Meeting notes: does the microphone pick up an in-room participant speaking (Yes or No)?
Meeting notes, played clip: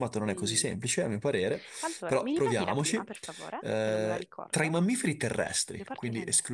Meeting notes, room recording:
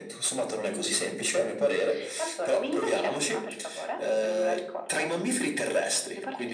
No